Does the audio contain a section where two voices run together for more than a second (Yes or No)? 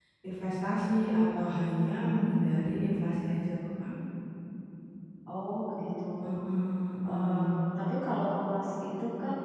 No